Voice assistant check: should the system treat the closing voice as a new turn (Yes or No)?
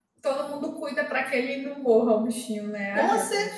Yes